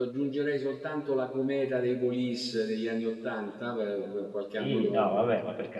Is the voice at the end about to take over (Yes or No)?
Yes